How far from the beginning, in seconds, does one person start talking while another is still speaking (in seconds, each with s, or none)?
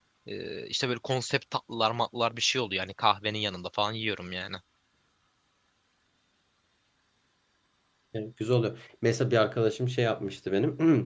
none